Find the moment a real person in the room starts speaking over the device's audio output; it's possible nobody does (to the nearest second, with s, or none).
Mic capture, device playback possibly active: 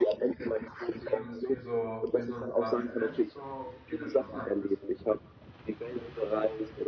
1 s